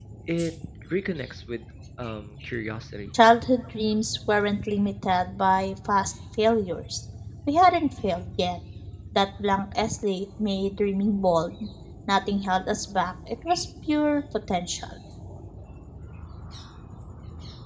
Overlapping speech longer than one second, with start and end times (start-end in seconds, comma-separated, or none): none